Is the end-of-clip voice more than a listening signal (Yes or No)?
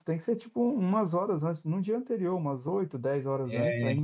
No